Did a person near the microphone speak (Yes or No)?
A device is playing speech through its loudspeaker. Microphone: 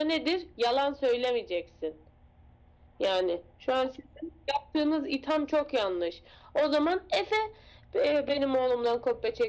No